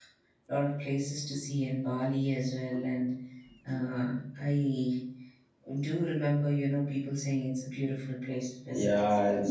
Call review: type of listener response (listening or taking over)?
taking over